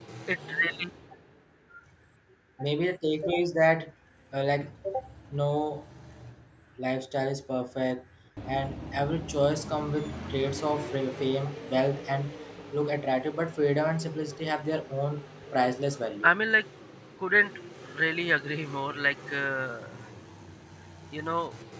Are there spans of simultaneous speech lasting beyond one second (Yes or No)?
No